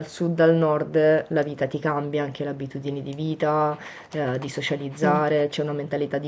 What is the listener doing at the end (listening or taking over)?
listening